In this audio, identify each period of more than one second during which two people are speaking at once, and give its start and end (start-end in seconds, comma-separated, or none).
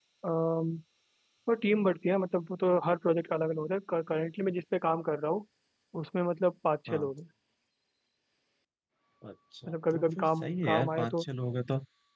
9.7-11.2